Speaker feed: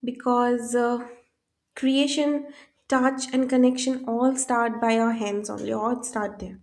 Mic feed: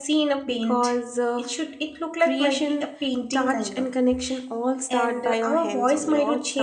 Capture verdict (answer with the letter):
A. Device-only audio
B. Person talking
B